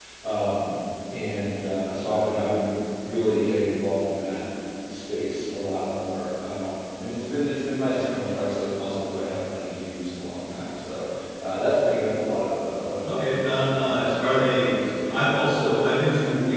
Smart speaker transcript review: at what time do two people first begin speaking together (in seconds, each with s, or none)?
13.0 s